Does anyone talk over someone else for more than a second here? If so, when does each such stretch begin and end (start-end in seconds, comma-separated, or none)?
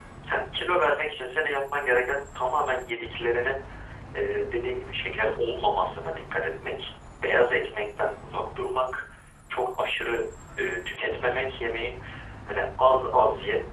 none